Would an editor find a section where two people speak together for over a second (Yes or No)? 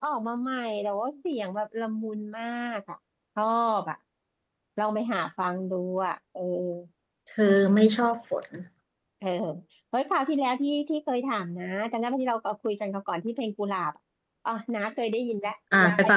No